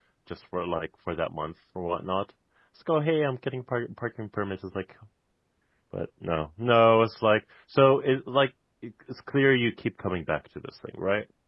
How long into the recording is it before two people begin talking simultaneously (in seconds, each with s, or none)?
none